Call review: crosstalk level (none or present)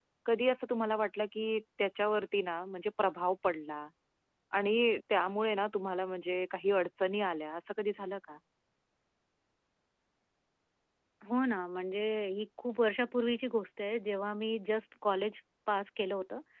none